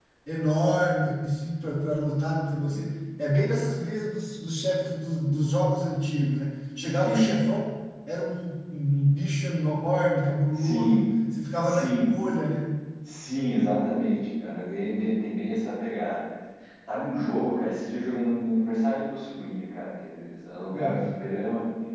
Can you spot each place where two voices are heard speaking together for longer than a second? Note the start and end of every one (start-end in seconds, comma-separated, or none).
none